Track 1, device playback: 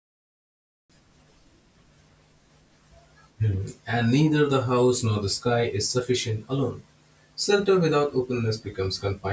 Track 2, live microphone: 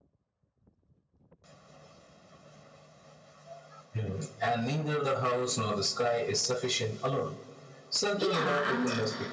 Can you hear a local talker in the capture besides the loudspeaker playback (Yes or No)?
Yes